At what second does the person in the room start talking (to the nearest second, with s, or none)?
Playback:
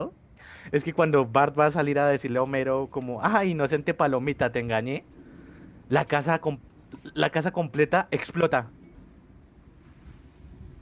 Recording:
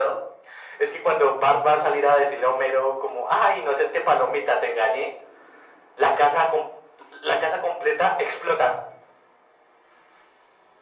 none